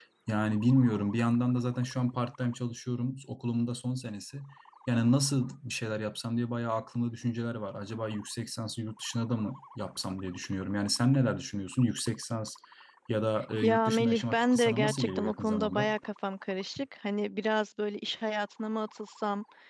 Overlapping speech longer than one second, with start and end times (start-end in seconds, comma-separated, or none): 13.6-15.9